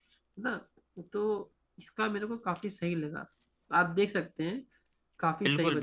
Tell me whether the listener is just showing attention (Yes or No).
No